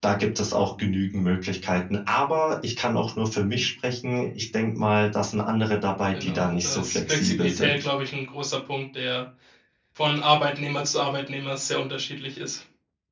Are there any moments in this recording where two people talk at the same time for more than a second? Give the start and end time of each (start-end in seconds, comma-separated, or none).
6.1-7.9